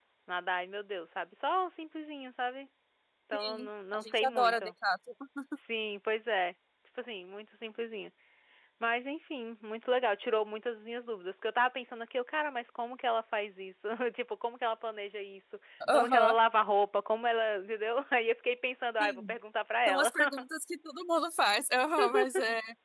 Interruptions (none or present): present